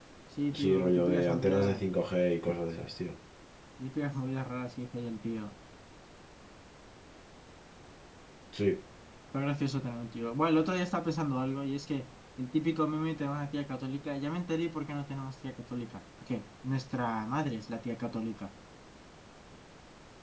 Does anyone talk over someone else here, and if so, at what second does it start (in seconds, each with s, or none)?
0.5 s